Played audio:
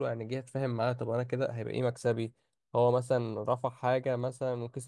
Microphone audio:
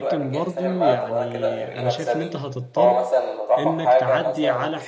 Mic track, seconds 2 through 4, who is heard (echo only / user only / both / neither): both